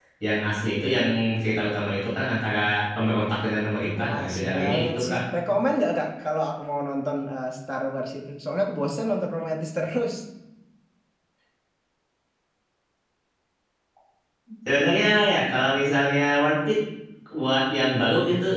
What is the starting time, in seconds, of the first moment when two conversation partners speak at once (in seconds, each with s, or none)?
4.0 s